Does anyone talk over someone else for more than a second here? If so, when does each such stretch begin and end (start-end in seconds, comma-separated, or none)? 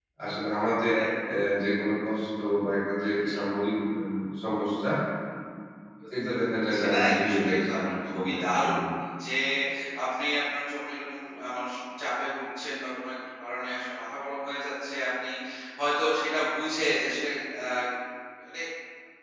6.3-8.8